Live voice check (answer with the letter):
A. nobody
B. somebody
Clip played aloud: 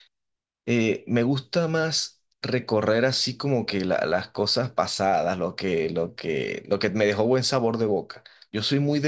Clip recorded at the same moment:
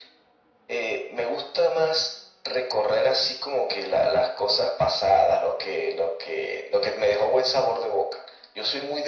A